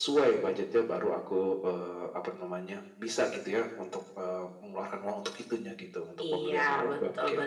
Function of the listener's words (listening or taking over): taking over